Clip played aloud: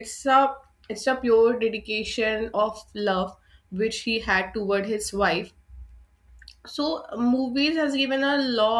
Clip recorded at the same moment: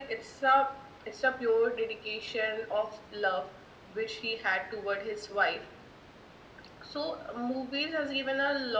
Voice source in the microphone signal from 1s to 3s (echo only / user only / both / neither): echo only